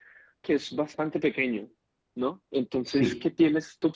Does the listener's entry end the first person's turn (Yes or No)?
No